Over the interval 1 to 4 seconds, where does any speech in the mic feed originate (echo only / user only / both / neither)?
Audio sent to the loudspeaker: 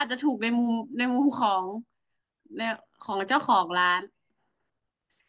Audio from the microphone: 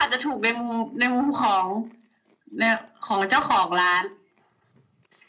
echo only